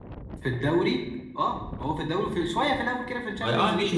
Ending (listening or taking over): taking over